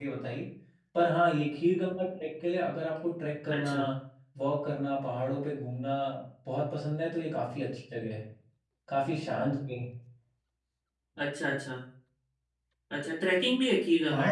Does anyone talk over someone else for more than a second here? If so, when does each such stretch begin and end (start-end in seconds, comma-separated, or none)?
none